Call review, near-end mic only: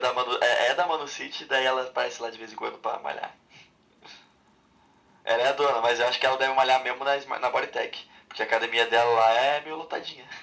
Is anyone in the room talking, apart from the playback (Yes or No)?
No